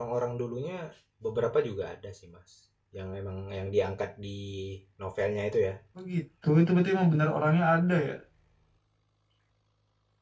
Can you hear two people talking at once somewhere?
No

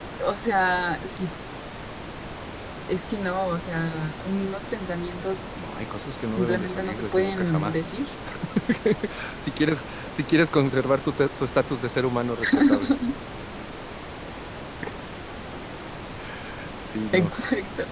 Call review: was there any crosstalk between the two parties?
Yes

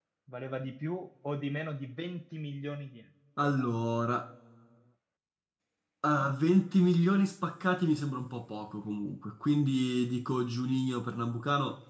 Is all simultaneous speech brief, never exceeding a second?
Yes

